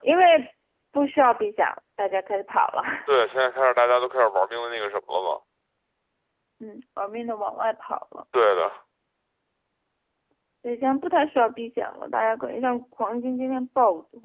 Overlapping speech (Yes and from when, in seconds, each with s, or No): No